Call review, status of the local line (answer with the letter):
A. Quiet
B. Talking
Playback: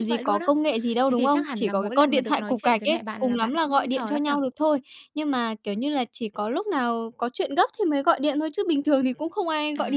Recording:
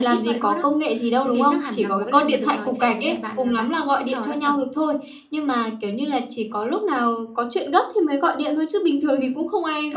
A